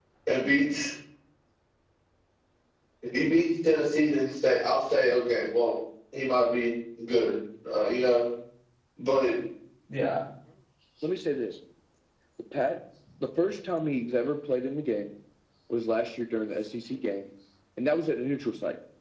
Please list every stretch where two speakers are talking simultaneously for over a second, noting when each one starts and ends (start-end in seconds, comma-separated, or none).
none